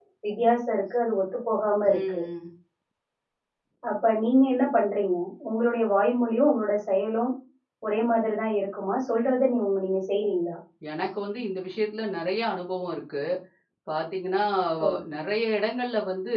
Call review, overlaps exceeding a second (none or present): none